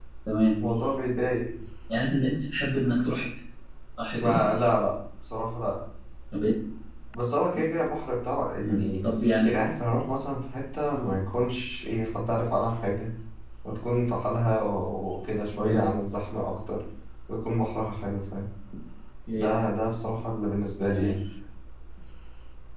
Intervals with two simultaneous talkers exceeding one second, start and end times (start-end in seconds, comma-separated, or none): none